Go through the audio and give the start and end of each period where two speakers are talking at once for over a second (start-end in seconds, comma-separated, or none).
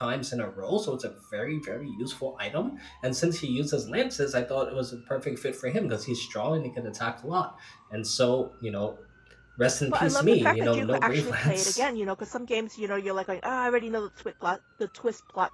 9.9-11.8